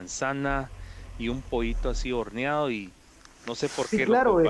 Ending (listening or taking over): taking over